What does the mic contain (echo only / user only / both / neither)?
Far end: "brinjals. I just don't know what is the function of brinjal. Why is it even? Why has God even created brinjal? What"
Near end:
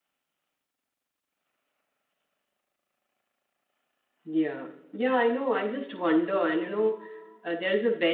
user only